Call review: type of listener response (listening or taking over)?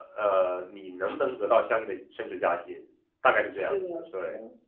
taking over